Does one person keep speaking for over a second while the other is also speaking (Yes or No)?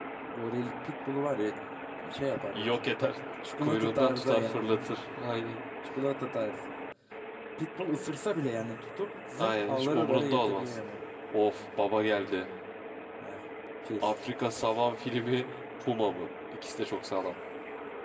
Yes